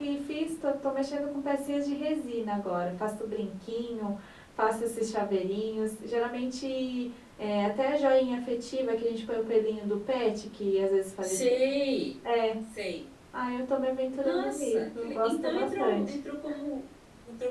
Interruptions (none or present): present